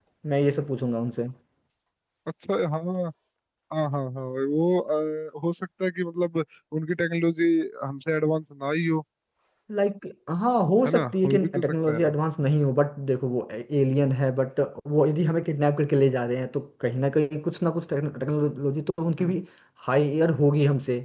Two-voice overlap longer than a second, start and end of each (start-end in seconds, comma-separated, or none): 10.9-12.1